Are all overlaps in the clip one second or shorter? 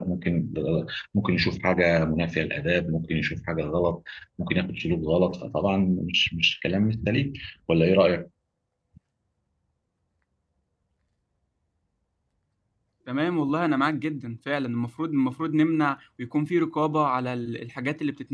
Yes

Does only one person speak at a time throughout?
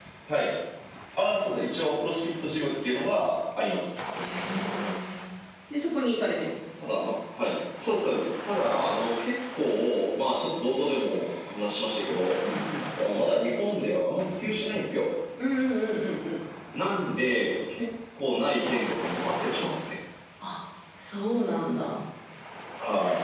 Yes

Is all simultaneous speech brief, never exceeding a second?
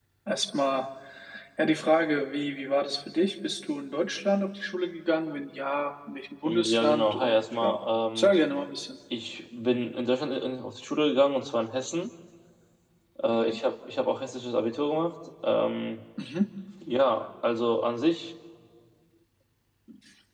No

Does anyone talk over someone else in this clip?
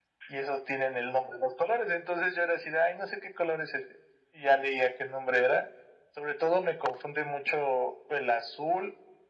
No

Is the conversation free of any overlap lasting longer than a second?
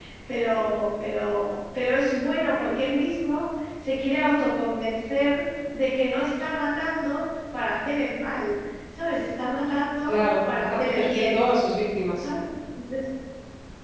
No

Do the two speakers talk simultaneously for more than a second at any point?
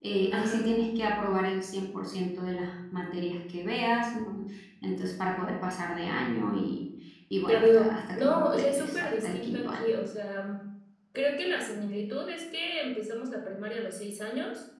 Yes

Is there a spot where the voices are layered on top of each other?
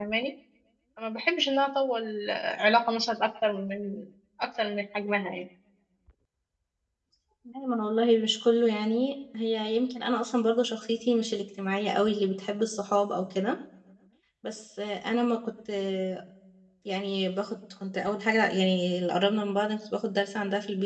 No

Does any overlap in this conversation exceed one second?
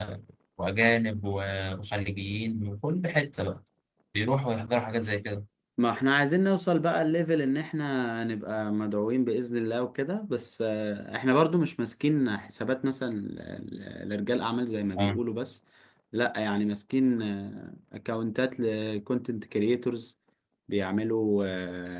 No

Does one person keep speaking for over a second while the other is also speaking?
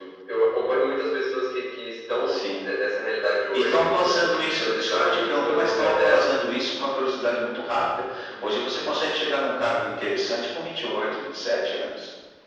Yes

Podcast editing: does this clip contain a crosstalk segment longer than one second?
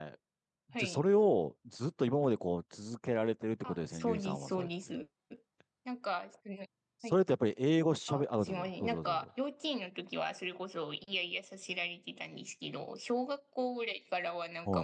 Yes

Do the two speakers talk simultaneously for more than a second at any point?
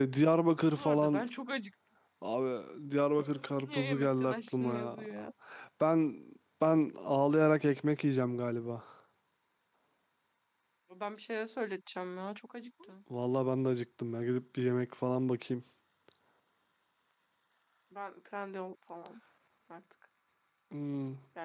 Yes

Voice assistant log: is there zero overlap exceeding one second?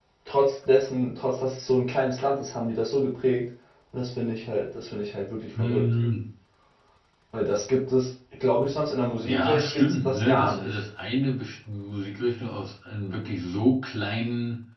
No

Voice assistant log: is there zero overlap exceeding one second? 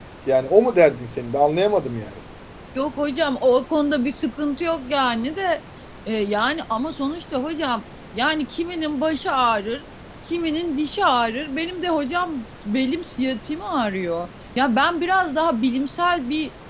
Yes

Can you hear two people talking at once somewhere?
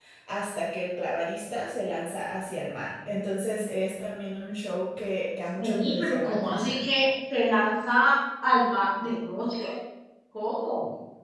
Yes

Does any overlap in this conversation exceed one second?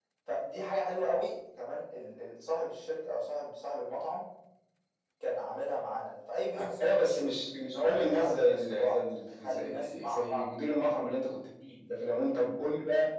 Yes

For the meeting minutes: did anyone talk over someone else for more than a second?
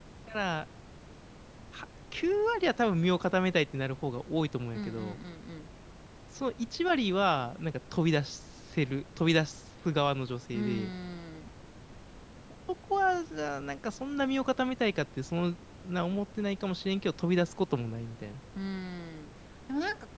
No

